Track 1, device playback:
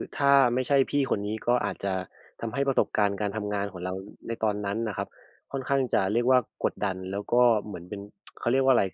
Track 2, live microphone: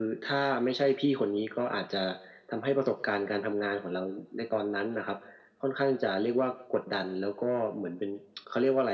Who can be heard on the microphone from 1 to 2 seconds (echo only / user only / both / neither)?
echo only